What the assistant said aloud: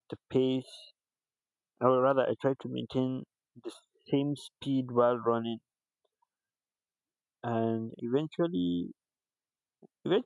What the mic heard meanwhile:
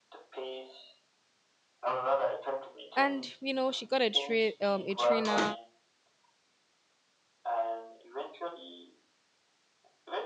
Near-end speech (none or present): present